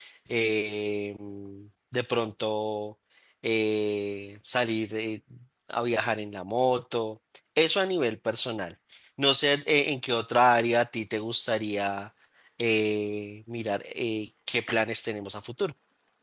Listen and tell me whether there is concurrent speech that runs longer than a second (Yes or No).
No